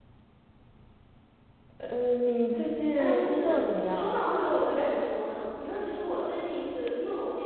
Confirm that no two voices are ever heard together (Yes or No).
No